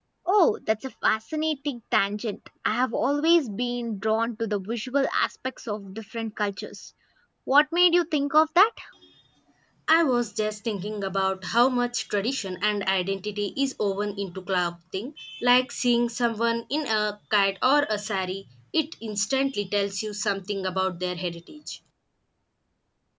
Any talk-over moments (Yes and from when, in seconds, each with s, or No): No